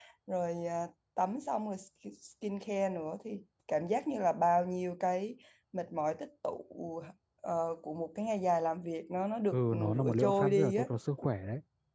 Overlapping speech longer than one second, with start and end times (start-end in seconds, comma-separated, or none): 9.5-10.9